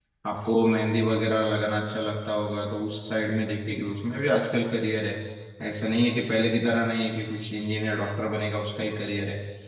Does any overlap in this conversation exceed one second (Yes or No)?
No